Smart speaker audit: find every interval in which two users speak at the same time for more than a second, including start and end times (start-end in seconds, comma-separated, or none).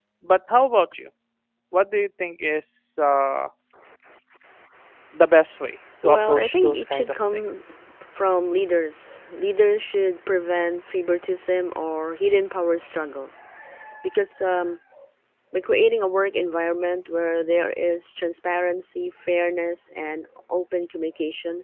6.0-7.5